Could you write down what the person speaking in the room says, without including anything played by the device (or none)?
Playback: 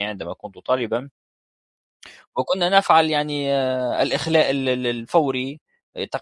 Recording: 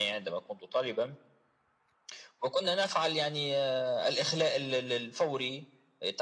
none